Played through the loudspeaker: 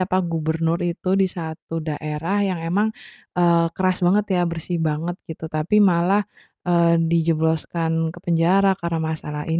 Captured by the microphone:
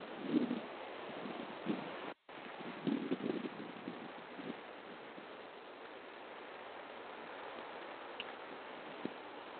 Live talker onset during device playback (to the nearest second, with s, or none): none